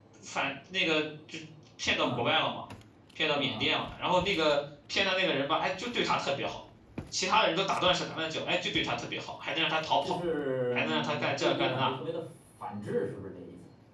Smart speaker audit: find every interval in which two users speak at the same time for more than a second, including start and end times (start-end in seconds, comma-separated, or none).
10.7-12.0